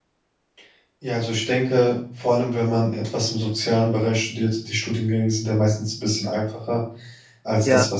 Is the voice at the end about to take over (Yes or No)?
No